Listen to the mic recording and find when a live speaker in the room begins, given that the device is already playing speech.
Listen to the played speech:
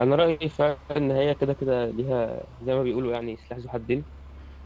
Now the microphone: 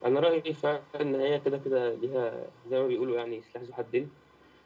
none

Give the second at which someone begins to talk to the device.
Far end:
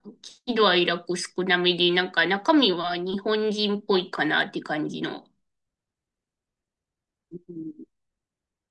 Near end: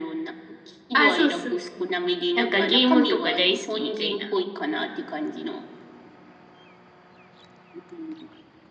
0.9 s

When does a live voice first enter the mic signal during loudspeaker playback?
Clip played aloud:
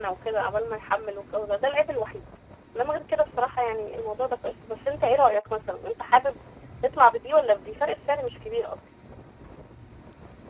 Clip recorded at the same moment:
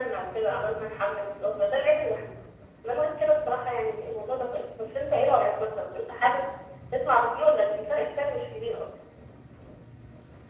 none

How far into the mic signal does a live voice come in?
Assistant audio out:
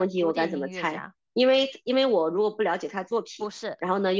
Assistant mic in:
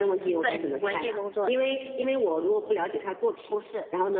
0.4 s

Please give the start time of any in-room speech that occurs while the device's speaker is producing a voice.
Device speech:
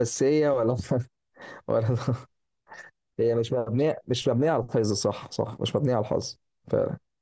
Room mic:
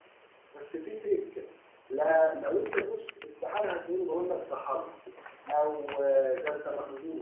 0.5 s

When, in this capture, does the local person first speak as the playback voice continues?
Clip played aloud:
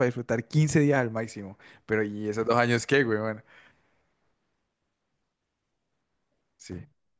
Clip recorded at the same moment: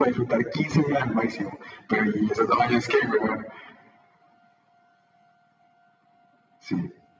none

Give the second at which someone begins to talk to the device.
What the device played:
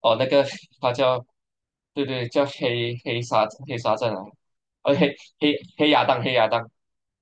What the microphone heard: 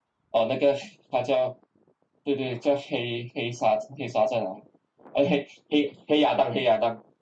none

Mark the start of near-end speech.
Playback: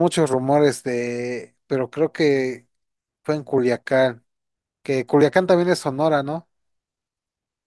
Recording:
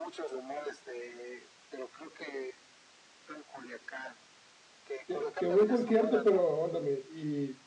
5.1 s

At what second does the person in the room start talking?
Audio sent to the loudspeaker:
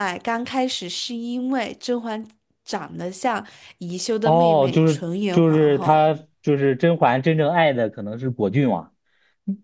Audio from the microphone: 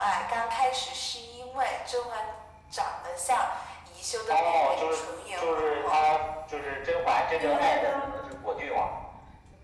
7.3 s

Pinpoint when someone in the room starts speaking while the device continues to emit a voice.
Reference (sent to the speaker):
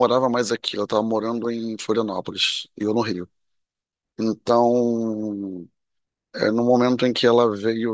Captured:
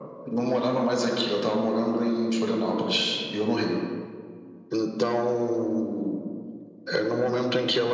none

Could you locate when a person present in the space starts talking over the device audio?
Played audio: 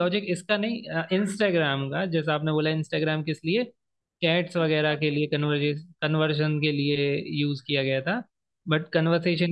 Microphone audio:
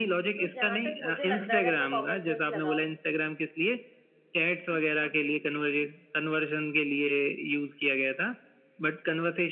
0.4 s

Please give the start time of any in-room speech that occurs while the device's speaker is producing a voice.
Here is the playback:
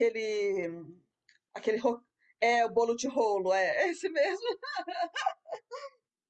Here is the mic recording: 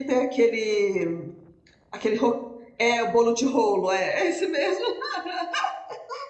none

